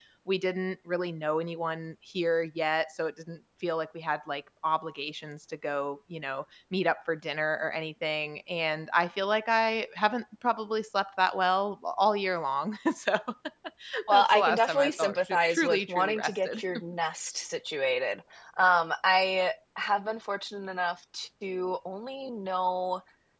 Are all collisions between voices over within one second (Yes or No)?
No